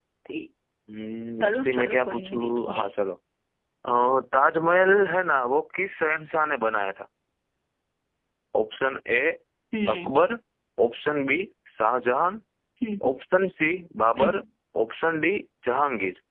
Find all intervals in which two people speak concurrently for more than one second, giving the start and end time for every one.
1.4-2.8

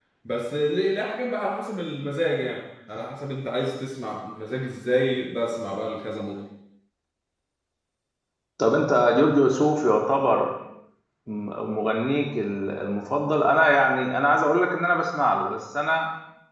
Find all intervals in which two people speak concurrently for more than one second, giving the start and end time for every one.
none

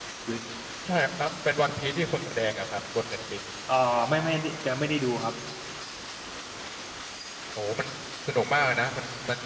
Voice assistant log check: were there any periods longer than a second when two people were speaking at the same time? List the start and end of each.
none

